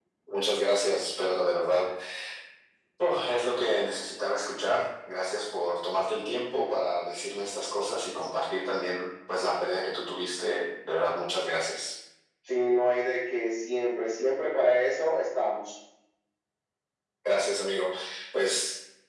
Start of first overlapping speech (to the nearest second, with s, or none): none